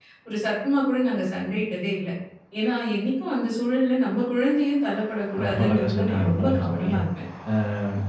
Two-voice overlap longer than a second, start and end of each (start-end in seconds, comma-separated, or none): 5.4-7.0